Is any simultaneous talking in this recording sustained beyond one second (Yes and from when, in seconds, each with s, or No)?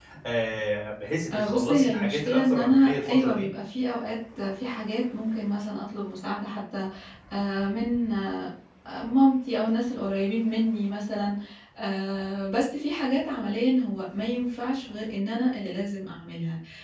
Yes, from 1.3 s